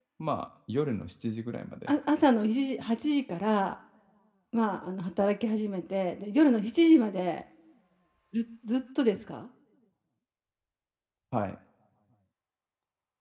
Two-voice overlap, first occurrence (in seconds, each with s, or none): none